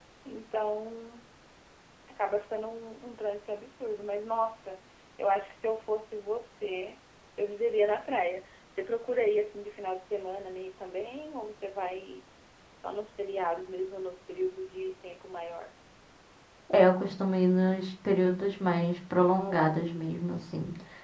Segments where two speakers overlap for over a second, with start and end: none

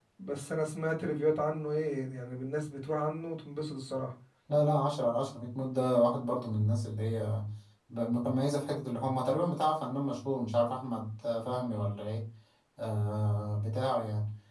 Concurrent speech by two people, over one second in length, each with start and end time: none

